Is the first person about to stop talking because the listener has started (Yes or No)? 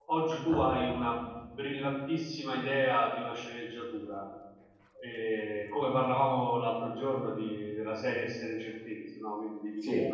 No